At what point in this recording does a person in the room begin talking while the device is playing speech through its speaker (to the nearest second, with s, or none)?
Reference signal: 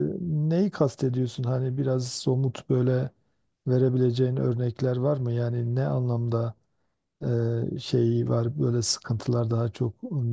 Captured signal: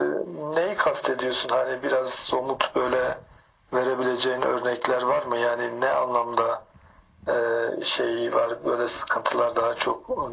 none